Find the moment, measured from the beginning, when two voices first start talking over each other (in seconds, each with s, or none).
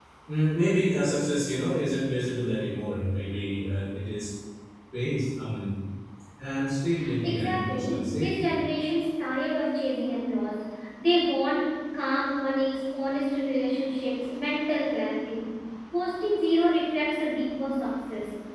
7.2 s